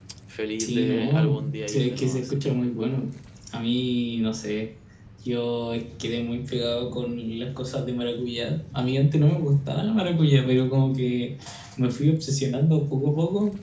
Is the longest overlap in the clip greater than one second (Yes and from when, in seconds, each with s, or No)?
Yes, from 0.6 s